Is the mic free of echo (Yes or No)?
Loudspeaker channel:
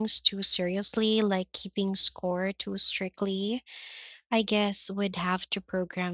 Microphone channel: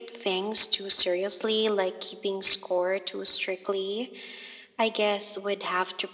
No